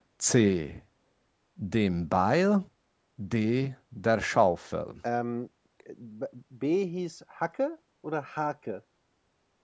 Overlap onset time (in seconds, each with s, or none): none